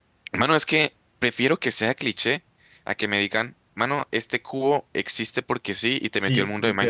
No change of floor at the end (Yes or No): No